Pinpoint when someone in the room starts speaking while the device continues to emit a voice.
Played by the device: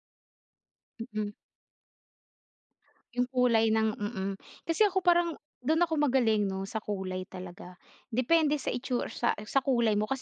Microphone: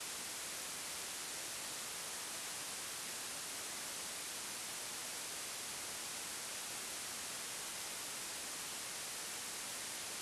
none

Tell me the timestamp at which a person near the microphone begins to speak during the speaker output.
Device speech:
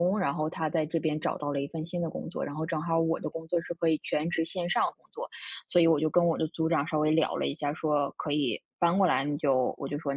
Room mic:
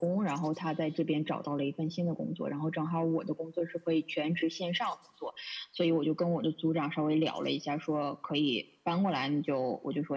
none

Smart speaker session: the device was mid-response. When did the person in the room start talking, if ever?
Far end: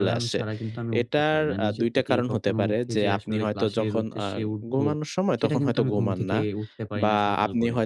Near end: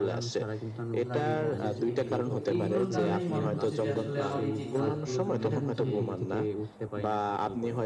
1.1 s

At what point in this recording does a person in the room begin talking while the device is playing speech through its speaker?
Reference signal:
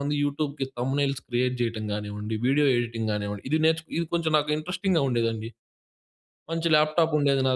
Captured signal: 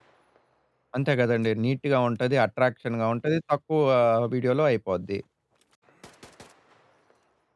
1.0 s

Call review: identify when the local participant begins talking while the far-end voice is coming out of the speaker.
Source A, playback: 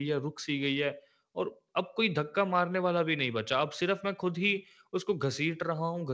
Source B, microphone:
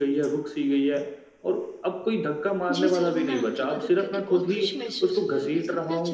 2.7 s

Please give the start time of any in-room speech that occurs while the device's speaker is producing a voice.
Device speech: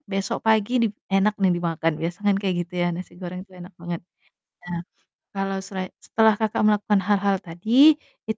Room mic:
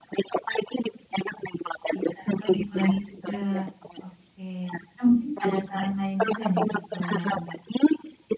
1.9 s

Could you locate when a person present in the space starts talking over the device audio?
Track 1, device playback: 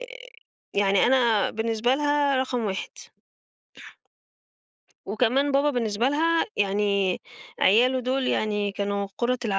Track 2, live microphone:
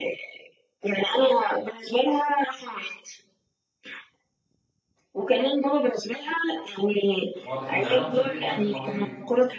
7.4 s

